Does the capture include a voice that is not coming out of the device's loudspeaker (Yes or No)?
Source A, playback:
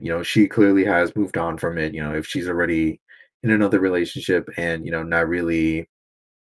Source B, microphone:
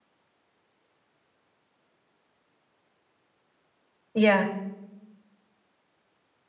Yes